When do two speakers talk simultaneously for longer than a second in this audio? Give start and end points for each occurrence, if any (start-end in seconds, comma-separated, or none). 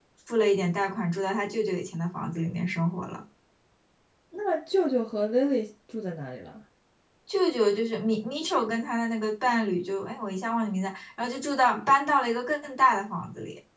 none